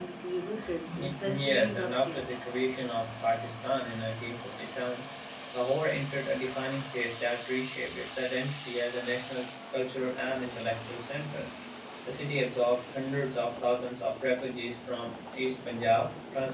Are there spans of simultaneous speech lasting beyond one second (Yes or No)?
Yes